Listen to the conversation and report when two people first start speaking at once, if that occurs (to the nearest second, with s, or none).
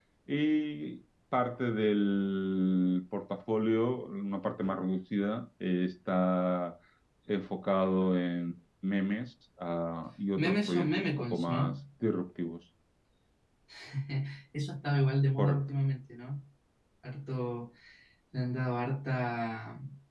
10 s